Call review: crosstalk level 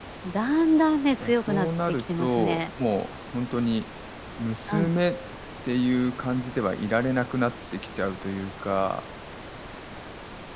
present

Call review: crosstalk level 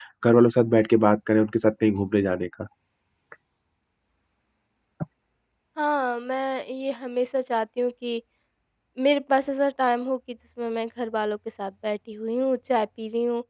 none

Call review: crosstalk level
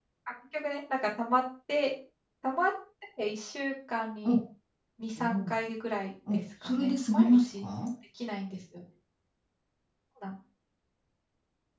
present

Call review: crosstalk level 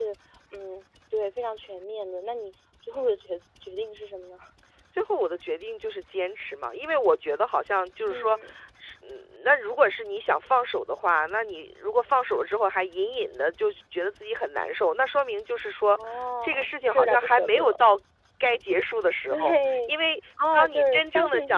present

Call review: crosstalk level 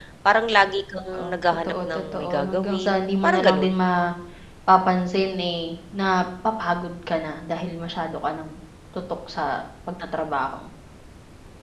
present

